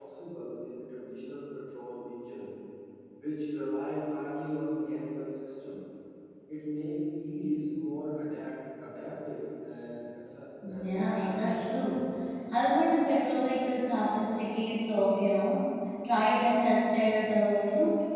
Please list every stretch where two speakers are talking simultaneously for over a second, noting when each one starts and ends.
10.7-12.0

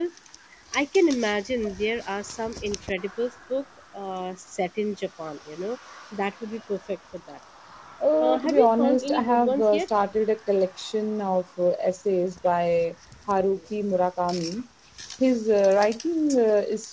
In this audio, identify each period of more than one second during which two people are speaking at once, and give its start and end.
8.2-9.9

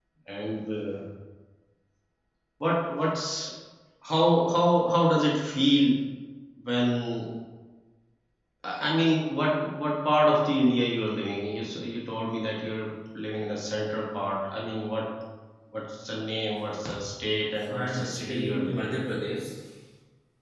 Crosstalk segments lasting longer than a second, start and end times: 17.6-18.9

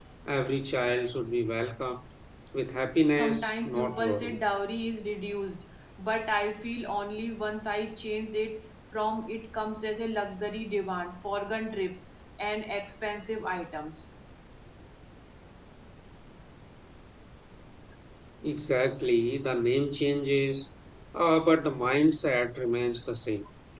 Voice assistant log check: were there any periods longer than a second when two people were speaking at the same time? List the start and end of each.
3.1-4.4

